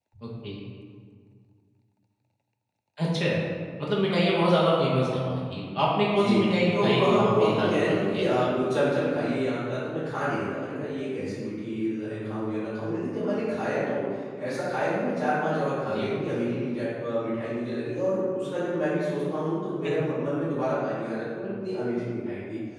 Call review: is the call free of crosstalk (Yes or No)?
No